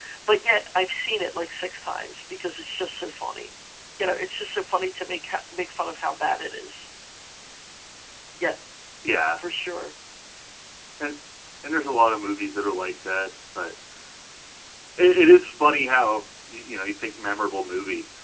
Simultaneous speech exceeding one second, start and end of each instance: none

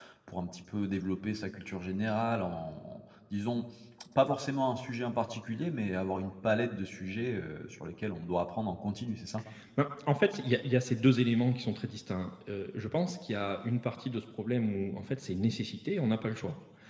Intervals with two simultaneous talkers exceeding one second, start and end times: none

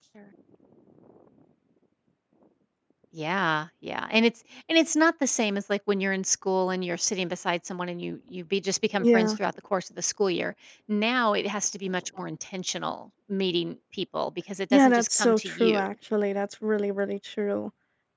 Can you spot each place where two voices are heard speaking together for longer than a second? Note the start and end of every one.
14.7-15.9

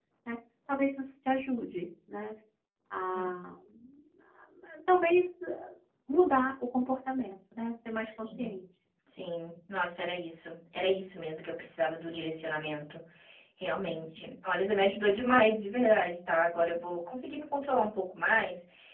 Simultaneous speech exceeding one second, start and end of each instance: none

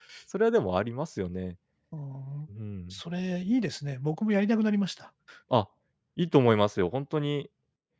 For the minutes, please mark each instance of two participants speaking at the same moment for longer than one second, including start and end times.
none

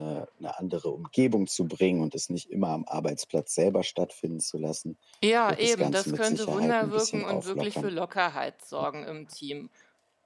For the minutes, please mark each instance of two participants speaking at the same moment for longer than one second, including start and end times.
5.5-7.9

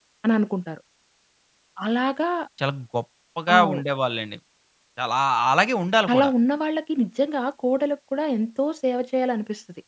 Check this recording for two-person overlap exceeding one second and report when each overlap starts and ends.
none

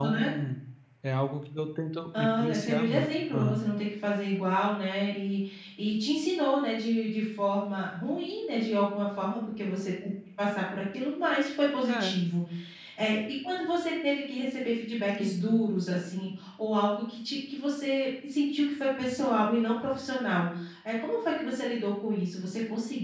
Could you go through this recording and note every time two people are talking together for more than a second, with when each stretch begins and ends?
2.1-3.6

